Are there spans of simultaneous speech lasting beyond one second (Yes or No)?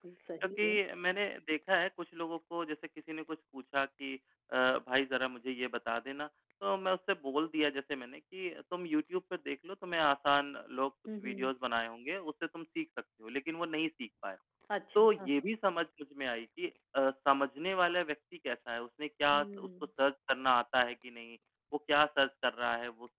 No